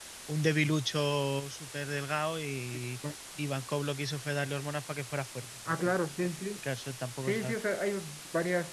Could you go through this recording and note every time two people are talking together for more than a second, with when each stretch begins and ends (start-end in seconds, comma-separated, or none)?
none